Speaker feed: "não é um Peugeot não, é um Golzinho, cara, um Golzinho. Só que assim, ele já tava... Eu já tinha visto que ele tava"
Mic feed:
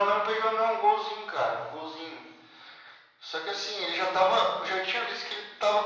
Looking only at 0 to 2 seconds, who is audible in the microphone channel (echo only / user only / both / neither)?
echo only